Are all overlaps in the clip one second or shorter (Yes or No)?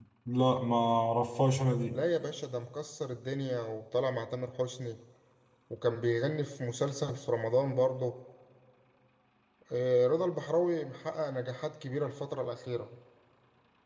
Yes